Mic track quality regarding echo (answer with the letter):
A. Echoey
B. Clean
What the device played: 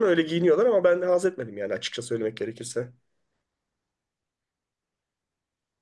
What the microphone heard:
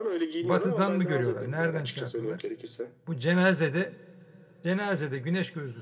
A